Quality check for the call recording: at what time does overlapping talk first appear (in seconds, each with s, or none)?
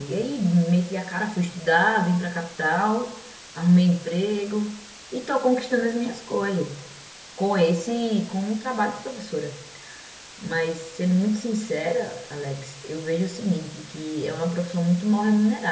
none